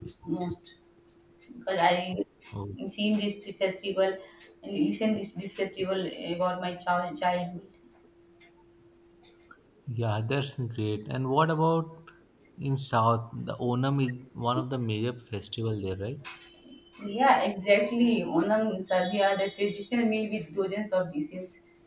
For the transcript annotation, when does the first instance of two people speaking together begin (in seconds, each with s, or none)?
none